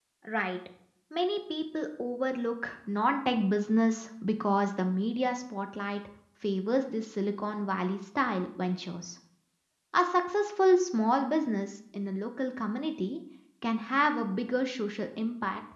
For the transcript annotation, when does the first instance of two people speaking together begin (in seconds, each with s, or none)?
none